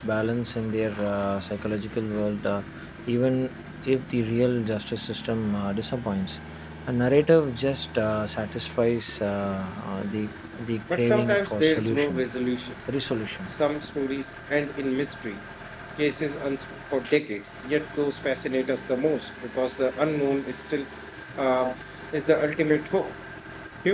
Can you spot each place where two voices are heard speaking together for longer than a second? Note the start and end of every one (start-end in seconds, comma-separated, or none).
10.9-12.2